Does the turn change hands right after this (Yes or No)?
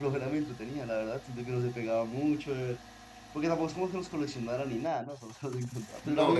Yes